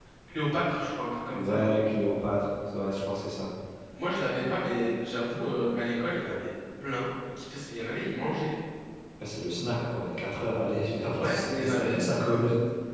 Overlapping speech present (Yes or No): Yes